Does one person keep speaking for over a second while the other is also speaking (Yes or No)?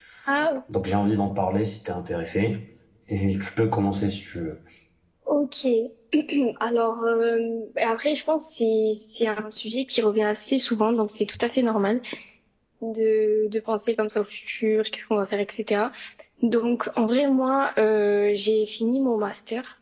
No